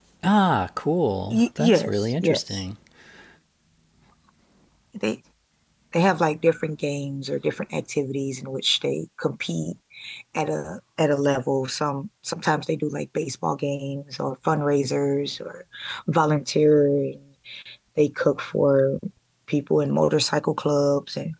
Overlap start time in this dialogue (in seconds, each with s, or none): 1.3 s